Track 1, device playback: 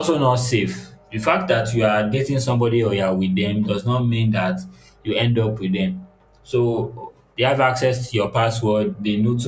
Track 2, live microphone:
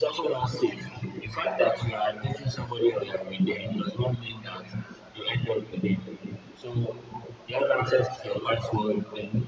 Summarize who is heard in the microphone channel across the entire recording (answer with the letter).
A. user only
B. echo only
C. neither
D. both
B